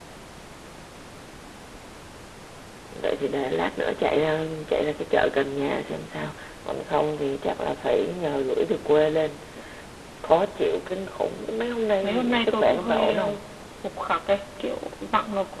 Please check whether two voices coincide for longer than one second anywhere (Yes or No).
Yes